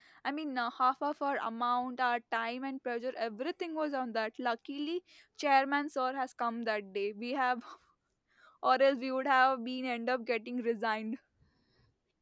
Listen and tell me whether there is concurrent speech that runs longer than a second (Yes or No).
No